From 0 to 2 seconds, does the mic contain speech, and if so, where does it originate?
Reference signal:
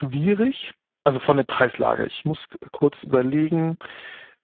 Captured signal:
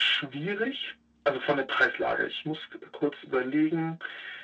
echo only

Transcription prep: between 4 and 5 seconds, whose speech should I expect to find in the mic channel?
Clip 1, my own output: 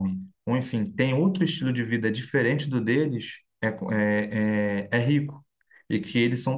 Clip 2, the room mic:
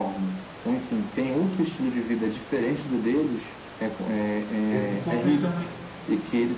both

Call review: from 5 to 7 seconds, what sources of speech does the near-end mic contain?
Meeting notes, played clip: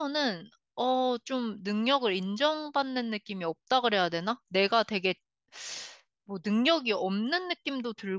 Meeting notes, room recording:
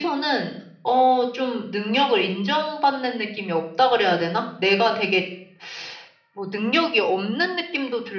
echo only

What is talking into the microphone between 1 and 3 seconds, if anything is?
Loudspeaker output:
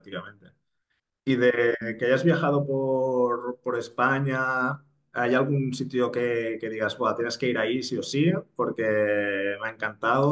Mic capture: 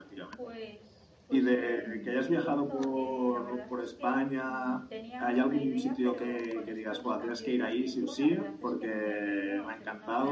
both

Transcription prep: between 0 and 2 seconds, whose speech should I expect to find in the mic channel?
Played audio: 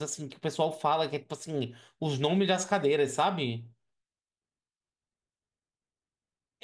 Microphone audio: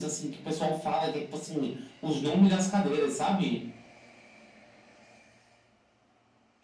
echo only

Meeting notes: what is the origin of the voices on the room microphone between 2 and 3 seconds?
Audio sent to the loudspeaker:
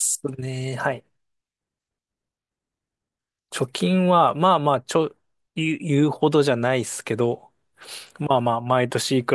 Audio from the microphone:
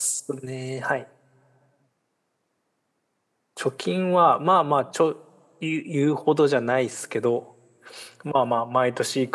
neither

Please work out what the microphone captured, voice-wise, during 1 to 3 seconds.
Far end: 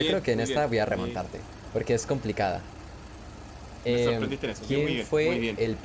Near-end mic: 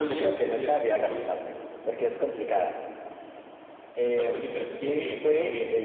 echo only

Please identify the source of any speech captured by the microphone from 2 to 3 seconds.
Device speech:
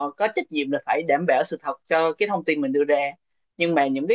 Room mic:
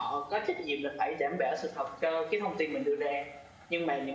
echo only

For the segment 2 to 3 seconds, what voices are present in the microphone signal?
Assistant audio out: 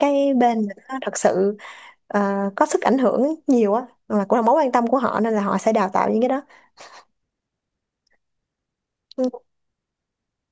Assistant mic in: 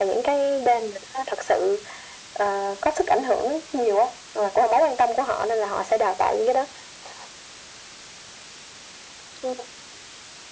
echo only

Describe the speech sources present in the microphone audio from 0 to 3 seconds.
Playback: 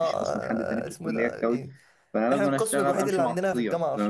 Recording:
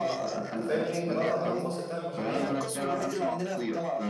both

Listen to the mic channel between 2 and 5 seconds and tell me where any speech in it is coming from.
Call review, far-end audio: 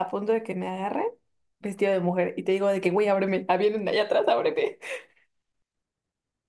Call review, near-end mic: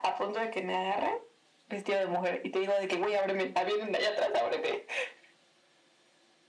echo only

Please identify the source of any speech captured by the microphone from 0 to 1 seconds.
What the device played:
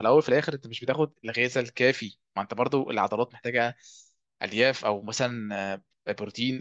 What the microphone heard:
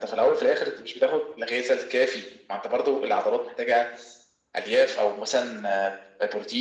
echo only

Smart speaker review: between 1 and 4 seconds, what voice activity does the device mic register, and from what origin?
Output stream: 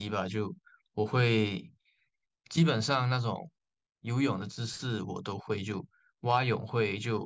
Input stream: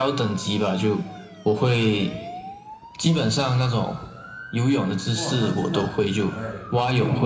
echo only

